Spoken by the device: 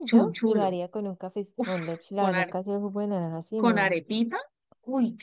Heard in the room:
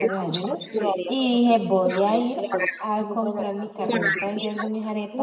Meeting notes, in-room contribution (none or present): present